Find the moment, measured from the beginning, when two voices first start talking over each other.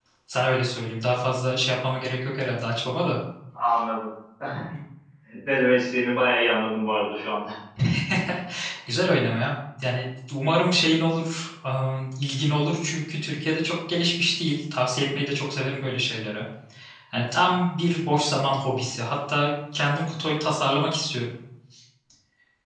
none

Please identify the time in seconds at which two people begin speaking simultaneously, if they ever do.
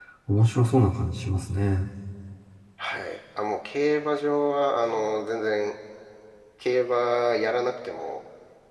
none

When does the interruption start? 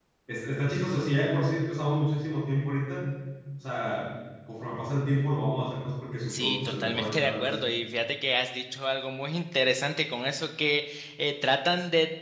6.3 s

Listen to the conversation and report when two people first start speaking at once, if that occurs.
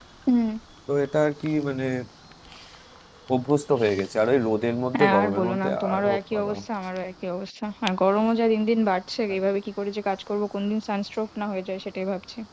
4.9 s

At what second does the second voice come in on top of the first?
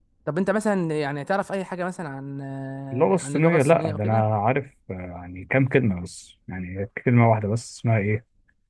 2.9 s

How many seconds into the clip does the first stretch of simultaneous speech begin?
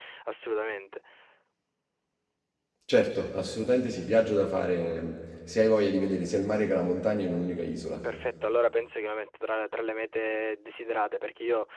none

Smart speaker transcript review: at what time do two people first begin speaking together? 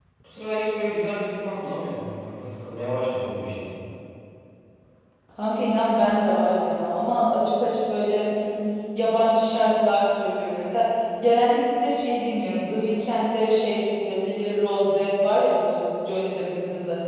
none

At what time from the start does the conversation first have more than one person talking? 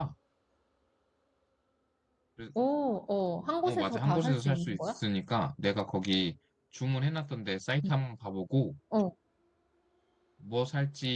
3.6 s

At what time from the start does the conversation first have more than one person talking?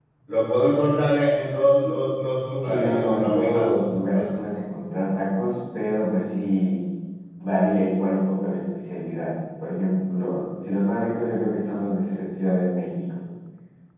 2.6 s

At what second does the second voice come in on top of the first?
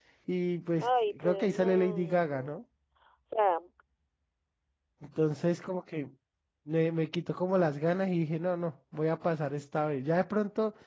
0.8 s

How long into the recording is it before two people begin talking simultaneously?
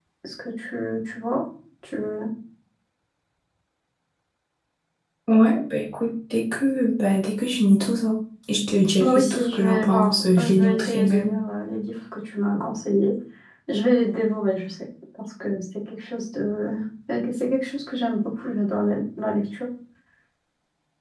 9.0 s

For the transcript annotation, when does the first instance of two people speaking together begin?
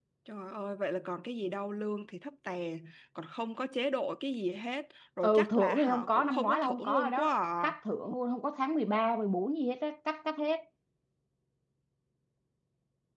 5.2 s

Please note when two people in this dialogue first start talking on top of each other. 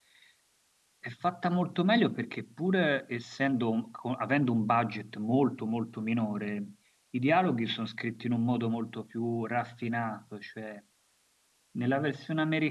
none

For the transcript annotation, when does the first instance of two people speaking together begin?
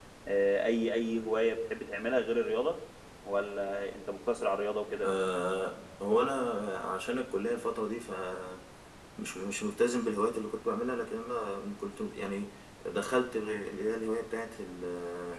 none

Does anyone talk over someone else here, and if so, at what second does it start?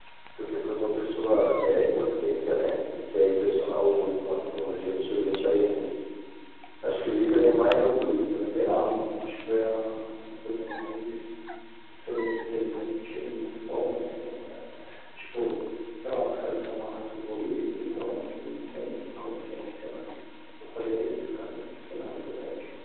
none

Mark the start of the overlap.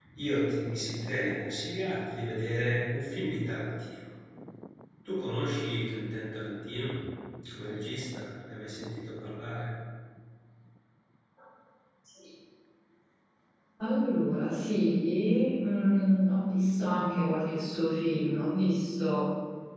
none

